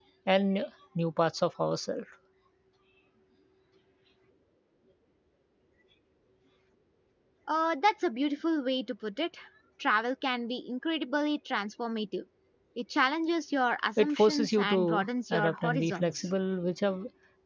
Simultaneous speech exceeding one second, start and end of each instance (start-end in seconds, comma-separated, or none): 14.0-16.3